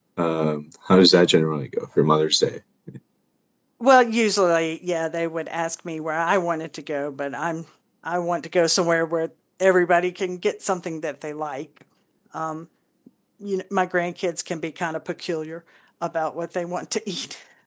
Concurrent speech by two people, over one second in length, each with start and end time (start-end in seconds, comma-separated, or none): none